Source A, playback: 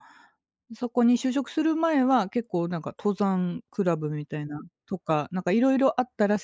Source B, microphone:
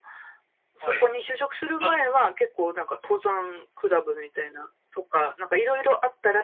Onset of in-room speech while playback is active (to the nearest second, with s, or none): 1 s